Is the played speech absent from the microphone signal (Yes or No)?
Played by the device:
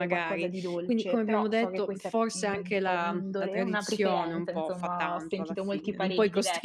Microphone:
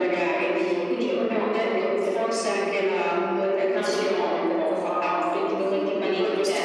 No